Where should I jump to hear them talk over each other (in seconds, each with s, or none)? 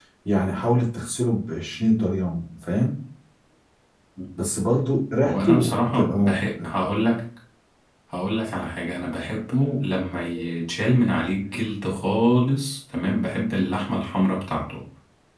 5.2 s